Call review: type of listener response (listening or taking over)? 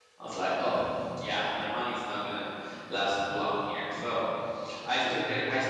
listening